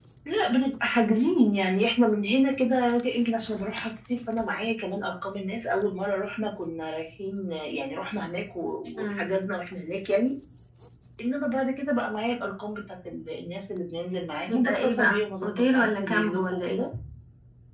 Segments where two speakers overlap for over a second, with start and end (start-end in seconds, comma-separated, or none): 14.5-16.8